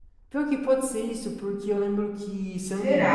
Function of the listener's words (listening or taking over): listening